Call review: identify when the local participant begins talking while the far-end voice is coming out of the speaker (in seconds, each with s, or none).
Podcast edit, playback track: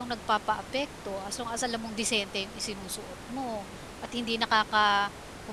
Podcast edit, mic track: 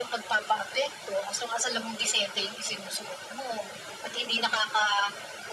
none